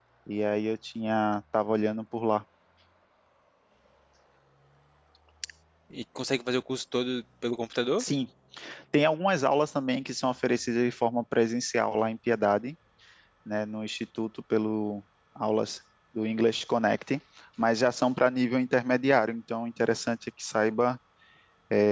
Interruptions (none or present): none